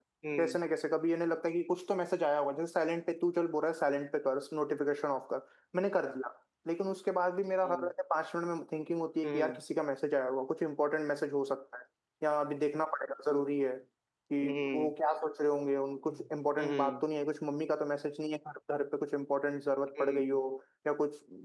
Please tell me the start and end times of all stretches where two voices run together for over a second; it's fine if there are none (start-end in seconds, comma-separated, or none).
none